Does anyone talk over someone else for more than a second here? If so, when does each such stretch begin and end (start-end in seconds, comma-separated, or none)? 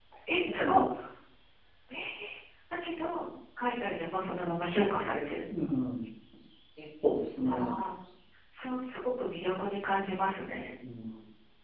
none